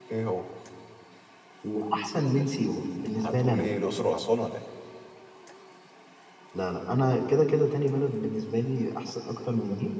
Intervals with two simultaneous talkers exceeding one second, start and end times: none

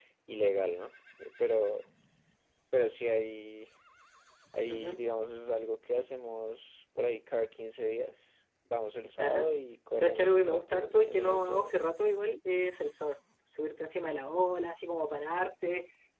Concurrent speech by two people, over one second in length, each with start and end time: 9.9-11.7

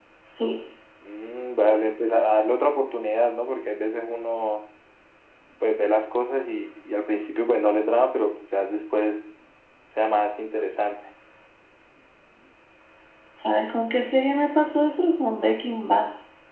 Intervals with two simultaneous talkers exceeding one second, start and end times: none

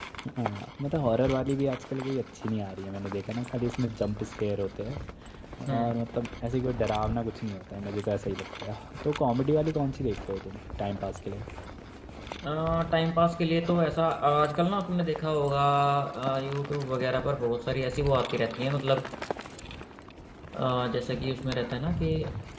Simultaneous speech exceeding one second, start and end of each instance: none

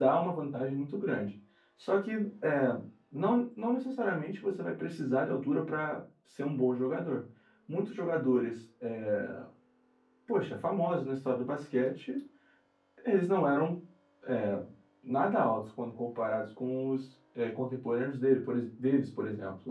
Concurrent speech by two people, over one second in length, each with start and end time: none

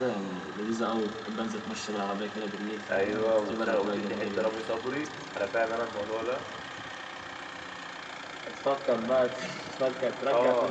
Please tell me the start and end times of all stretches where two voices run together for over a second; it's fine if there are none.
2.9-4.5

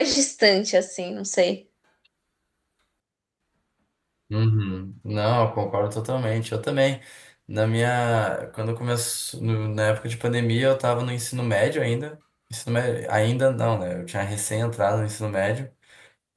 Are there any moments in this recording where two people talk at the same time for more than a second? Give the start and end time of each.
none

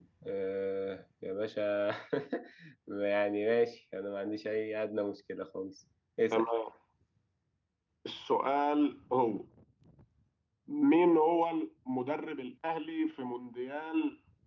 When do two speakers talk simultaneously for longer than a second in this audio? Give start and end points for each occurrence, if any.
none

